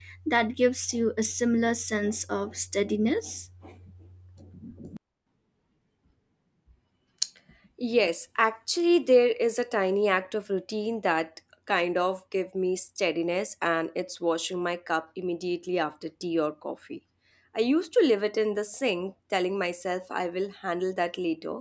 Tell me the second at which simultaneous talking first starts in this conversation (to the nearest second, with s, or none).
none